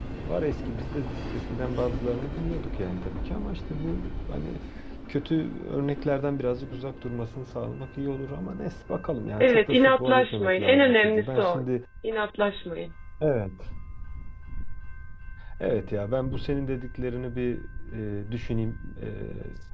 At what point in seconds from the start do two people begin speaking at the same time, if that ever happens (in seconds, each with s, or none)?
9.4 s